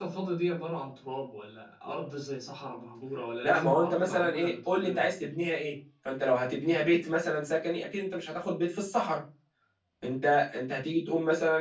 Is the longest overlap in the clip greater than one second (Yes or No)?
Yes